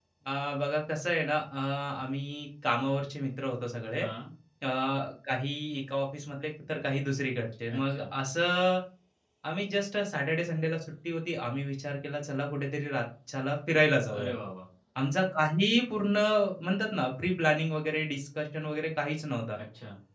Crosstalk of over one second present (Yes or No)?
No